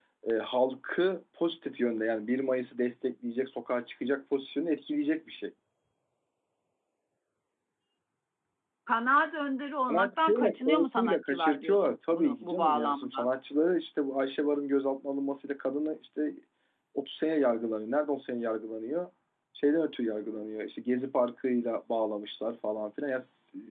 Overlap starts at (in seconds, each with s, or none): 9.9 s